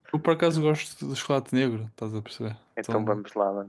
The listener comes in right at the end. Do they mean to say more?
Yes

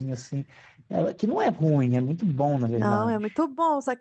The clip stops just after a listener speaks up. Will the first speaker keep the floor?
No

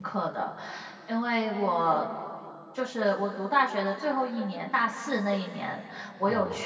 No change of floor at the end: Yes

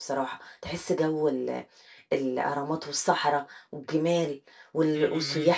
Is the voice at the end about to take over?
No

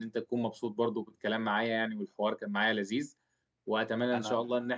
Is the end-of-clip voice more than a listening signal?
No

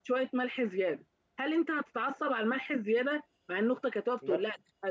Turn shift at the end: No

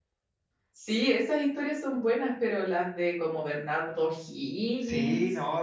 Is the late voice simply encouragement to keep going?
No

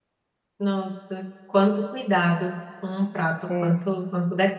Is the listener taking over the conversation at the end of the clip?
No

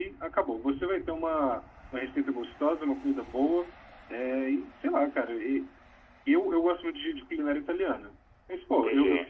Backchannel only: Yes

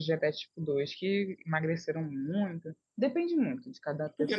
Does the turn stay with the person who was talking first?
No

